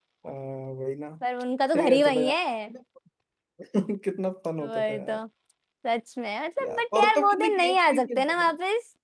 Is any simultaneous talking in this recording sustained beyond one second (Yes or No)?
Yes